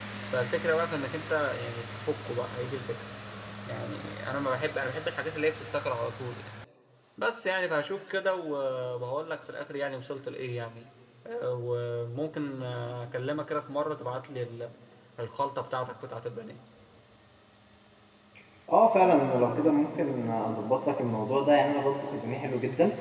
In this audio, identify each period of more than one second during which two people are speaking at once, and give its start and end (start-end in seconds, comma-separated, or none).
none